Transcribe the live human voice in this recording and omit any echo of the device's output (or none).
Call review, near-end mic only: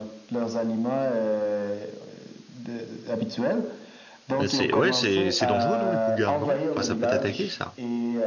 mais c'est, ouais, c'est, c'est dangereux, non, les cougars, non? Enfin, ça peut t'attaquer, ça.